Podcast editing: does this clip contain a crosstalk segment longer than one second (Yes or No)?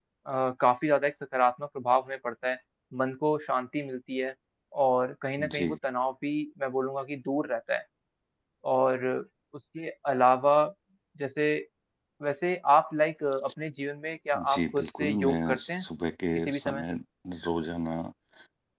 Yes